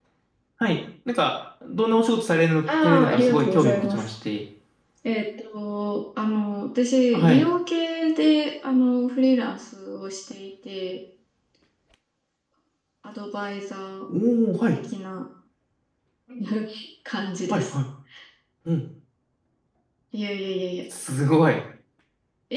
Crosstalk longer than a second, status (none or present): present